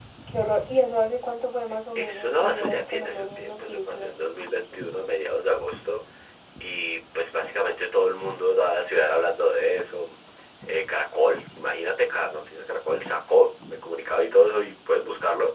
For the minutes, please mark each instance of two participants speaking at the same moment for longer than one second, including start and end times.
2.0-4.1

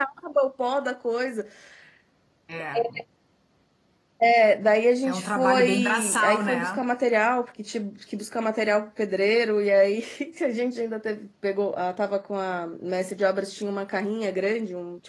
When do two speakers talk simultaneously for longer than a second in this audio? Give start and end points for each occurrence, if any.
5.1-6.8

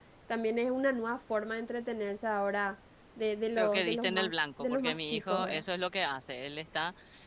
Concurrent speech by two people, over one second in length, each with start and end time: 3.6-5.6

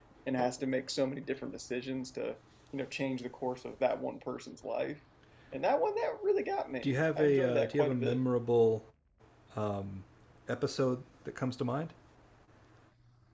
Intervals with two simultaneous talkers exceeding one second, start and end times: 6.8-8.2

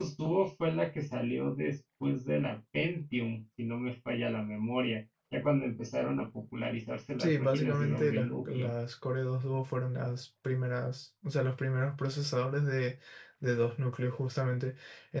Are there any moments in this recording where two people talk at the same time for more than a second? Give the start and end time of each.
7.2-8.7

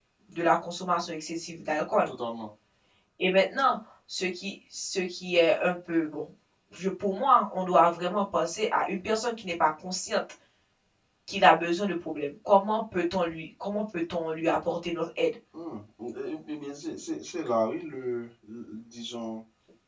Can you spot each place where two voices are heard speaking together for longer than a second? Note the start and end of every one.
none

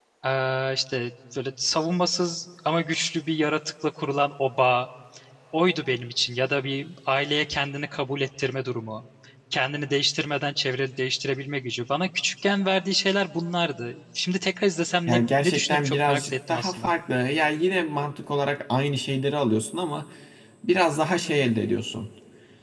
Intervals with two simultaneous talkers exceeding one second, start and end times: 15.1-16.9

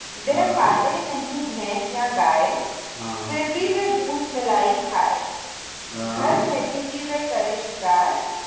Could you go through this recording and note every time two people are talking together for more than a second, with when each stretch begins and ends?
none

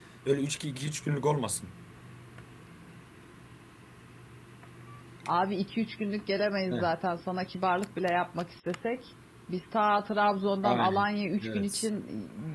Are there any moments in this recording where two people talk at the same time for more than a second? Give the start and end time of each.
none

